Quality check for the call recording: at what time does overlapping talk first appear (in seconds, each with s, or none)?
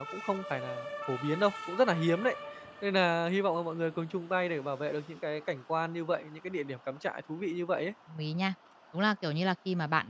none